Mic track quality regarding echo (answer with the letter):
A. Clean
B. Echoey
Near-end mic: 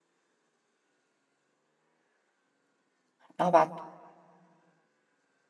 A